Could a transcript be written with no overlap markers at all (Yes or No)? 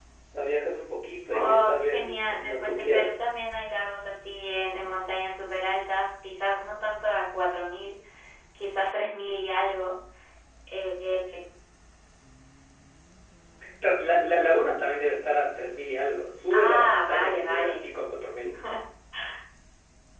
No